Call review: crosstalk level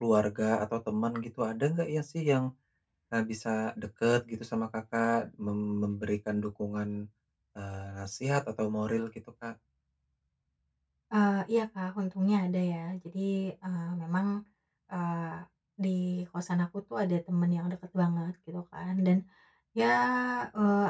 none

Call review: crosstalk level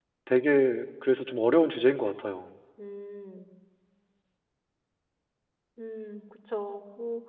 none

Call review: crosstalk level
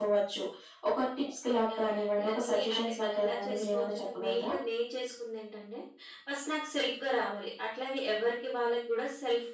present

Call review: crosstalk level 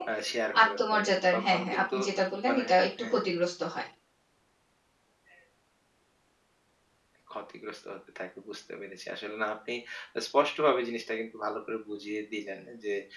present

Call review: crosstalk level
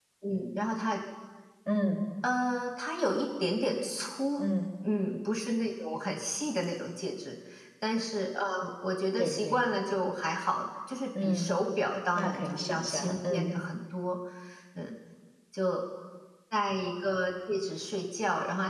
present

